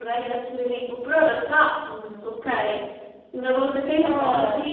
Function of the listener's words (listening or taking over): listening